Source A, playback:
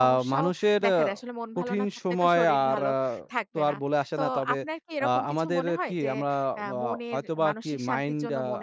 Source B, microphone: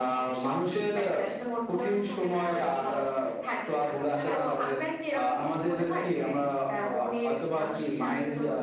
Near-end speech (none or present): present